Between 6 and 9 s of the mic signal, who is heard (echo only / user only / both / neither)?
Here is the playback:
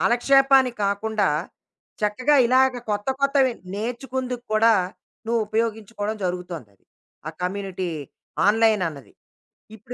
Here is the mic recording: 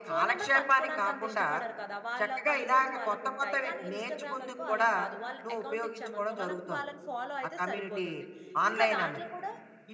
both